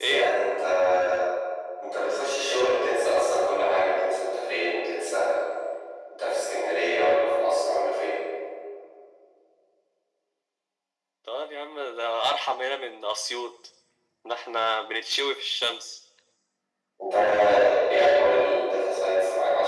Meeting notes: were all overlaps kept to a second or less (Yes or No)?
Yes